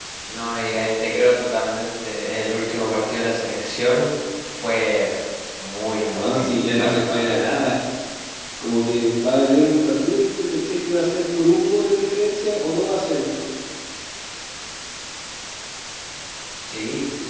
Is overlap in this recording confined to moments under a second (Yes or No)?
No